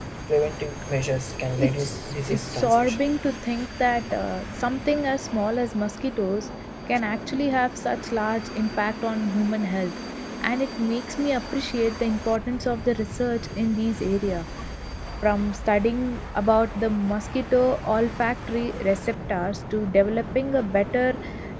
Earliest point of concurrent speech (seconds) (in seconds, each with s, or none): 1.6 s